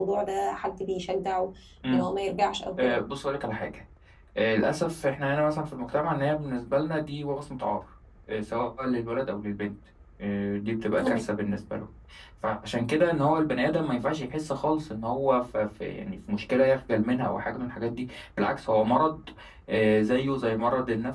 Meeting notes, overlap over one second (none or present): none